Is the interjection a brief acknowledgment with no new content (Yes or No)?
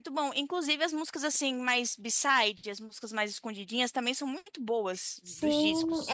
No